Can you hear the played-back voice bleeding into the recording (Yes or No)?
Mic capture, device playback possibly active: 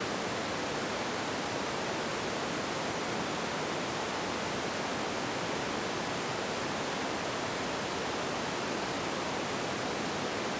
No